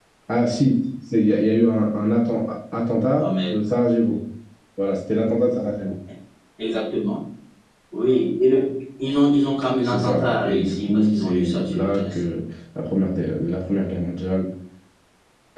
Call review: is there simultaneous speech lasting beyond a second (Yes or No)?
Yes